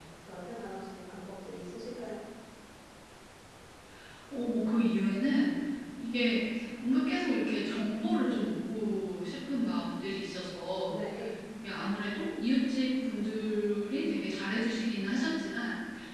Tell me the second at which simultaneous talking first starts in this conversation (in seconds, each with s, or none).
none